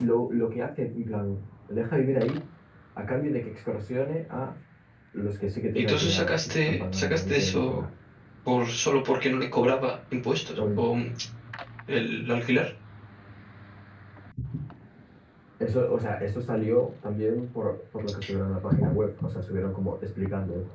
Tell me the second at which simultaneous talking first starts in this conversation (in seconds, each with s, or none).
5.8 s